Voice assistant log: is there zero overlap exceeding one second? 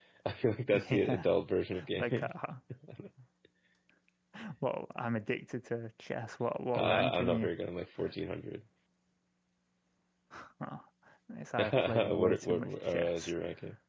No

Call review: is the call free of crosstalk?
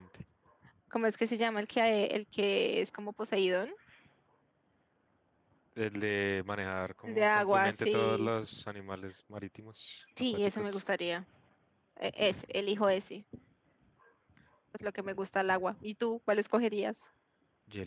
No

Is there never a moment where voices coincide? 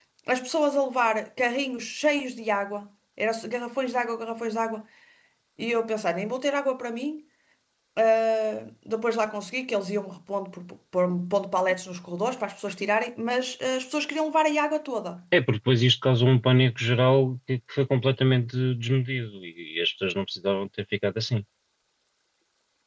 Yes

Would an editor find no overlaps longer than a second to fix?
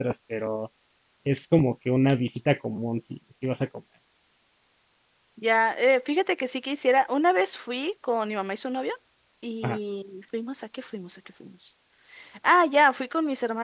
Yes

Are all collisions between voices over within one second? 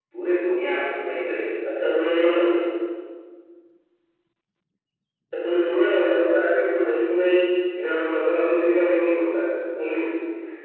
Yes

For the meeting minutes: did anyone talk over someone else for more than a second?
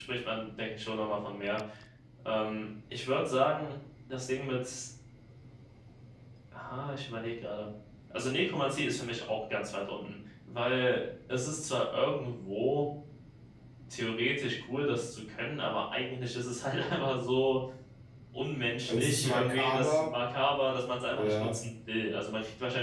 Yes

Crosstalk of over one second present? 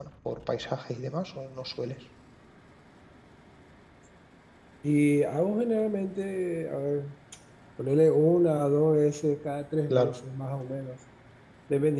No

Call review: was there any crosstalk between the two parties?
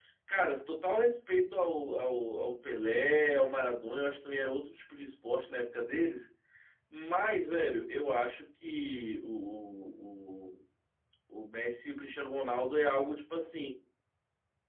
No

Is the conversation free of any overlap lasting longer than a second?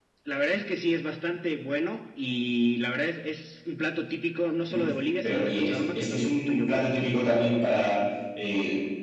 No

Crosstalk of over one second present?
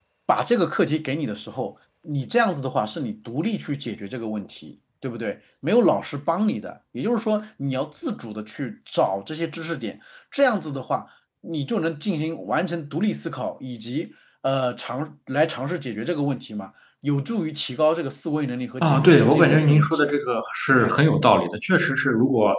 Yes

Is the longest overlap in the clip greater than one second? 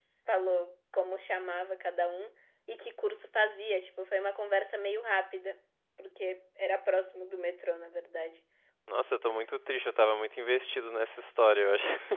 No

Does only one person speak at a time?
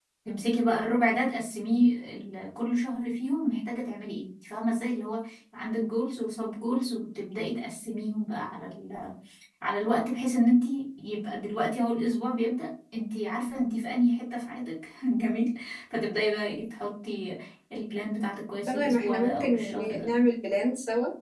No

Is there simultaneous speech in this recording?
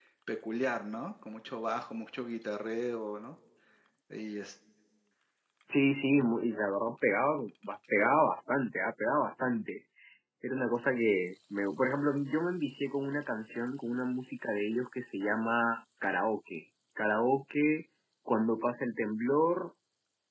No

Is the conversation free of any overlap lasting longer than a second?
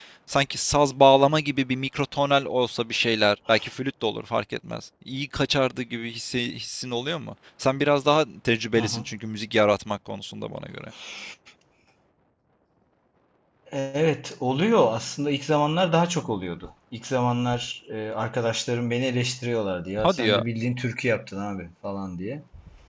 Yes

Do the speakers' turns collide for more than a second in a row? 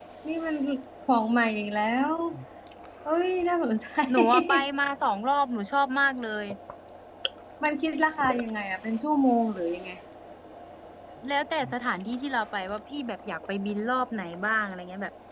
No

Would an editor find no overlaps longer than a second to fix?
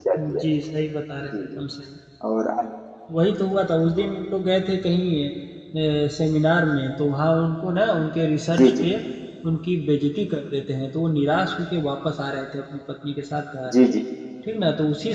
Yes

